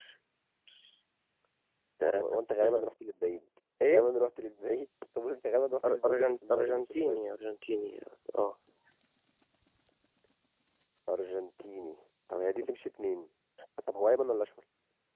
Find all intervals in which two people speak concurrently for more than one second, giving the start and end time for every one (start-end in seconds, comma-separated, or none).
5.9-7.2